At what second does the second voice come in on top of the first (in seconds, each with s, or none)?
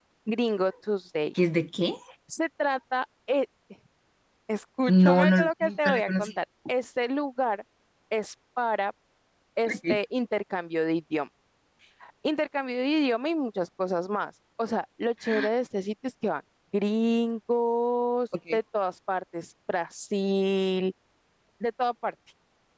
4.9 s